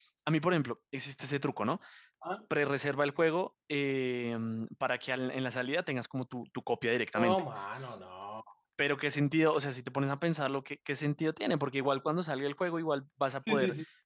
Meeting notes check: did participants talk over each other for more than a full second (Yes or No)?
No